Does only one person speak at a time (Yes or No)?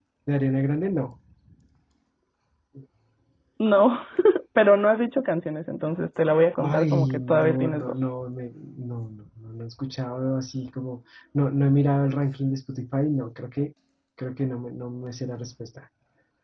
No